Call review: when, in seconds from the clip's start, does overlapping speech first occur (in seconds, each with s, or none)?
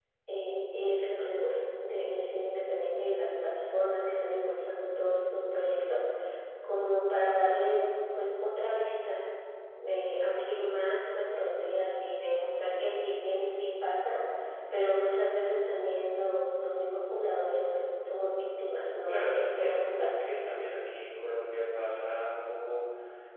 19.1 s